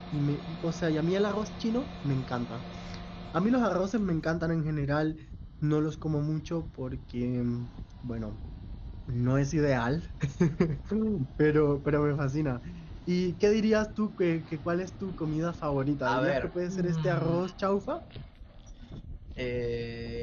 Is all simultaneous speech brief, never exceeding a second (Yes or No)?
No